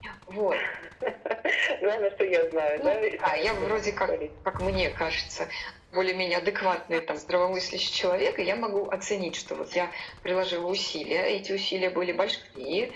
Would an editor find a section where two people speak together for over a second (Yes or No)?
Yes